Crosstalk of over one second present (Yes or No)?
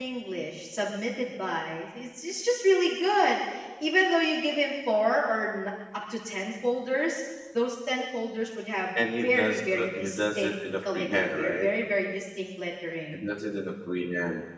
Yes